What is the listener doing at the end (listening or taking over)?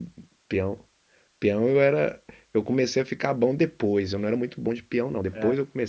listening